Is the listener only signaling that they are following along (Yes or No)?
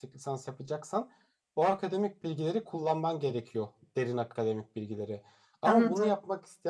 Yes